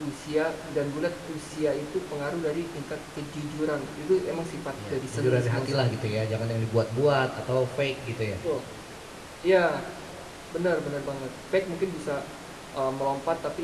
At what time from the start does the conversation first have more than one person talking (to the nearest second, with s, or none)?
5 s